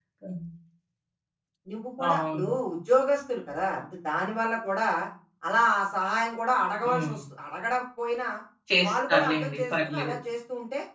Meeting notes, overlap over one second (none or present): present